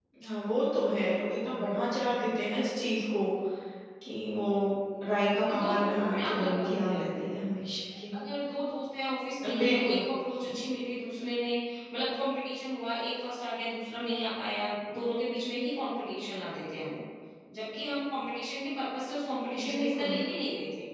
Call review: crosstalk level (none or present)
present